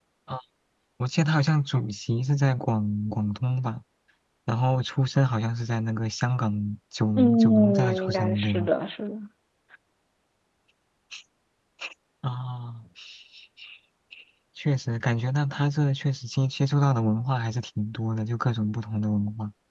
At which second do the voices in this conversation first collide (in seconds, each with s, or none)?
7.2 s